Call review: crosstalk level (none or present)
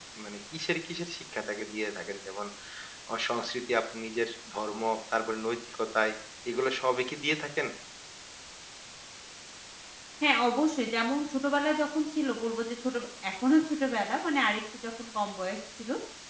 none